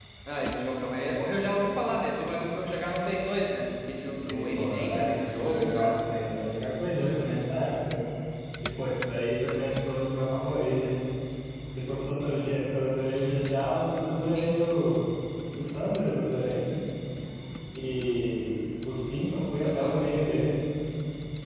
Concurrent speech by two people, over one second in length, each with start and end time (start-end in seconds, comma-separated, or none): 4.2-5.9